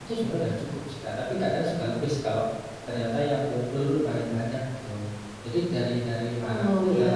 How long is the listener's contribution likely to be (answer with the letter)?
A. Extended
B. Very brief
B